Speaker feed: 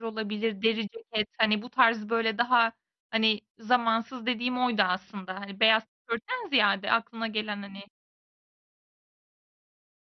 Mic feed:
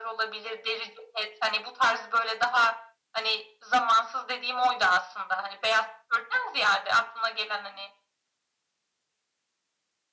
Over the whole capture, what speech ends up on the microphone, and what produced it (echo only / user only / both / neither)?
echo only